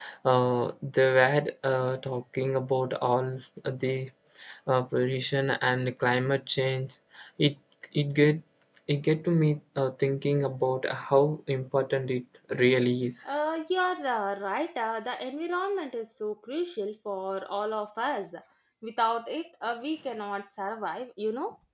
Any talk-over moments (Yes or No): No